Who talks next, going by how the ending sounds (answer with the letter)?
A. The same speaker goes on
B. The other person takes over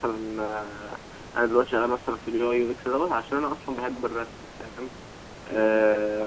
A